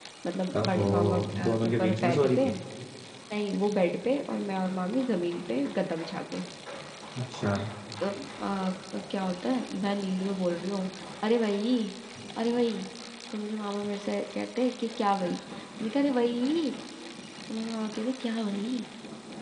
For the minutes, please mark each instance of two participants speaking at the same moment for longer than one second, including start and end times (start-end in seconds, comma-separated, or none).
0.6-2.5